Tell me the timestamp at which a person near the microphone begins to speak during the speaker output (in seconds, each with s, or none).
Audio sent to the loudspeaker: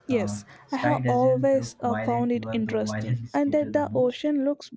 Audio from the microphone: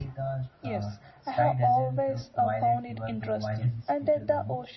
none